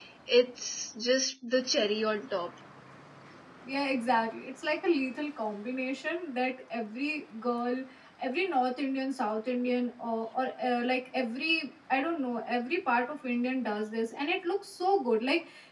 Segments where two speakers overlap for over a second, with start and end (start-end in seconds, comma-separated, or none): none